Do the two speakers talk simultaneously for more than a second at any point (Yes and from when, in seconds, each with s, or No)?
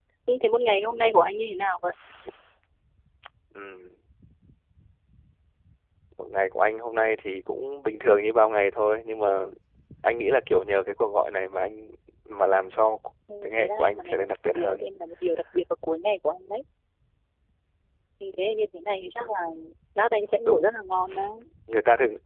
Yes, from 13.4 s